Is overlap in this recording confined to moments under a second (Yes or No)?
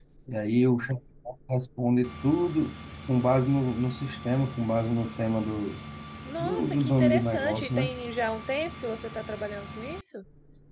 No